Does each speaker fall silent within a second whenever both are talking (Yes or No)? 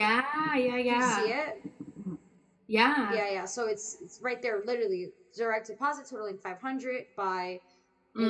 Yes